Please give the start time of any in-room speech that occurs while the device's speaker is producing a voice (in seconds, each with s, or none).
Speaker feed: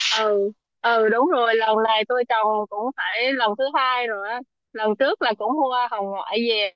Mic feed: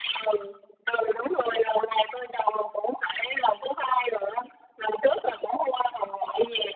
none